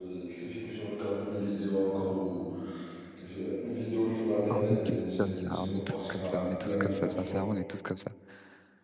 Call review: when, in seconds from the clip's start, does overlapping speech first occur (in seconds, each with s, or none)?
4.5 s